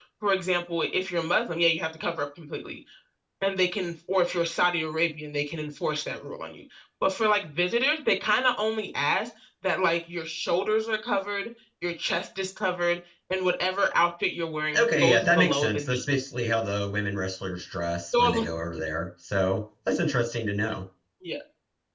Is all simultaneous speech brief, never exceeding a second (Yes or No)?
No